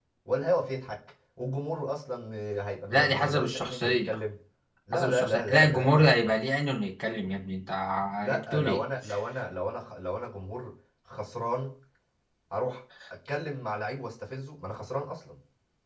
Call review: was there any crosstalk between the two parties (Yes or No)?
Yes